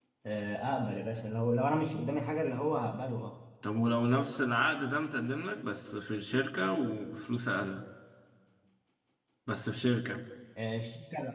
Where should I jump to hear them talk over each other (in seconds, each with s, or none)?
none